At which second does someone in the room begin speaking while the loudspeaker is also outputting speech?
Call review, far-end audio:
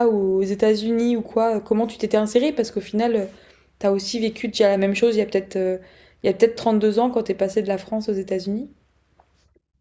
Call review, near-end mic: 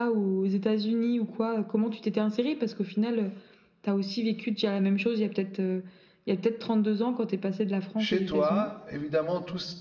8.0 s

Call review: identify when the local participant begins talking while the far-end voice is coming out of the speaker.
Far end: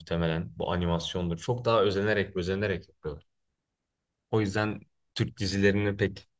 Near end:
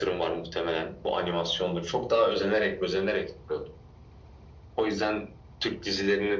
none

